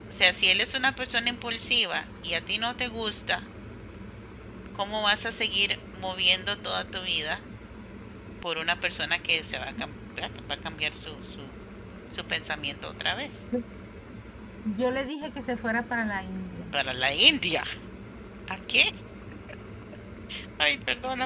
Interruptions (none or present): none